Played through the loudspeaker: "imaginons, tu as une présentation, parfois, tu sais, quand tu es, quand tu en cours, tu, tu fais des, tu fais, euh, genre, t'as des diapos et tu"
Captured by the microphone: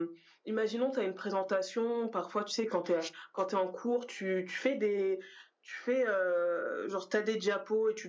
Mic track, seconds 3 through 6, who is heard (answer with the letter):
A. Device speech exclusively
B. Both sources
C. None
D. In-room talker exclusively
A